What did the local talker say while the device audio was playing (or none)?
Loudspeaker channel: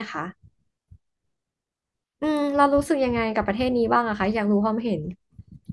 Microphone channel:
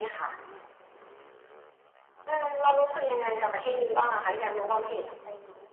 อืมเวียดนามต้องก็อยากไปนะ